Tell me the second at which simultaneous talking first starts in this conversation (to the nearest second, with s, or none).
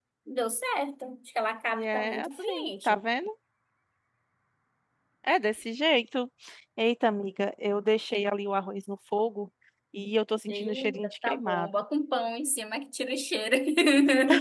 2 s